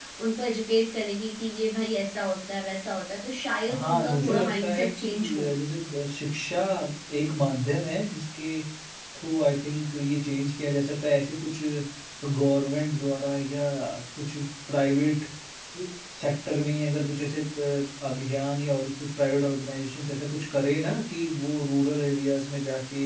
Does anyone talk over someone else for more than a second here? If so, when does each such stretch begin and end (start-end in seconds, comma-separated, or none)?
3.7-5.5